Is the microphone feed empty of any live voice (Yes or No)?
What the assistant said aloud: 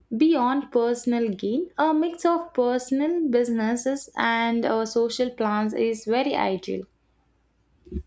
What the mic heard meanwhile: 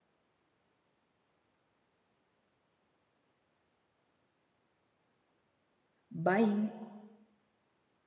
No